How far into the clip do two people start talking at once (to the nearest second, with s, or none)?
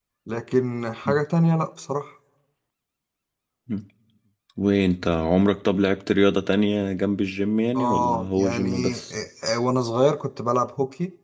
8 s